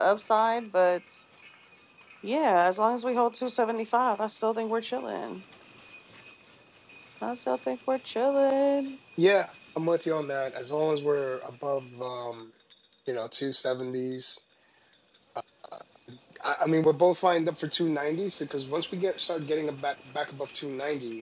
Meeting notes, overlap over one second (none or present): none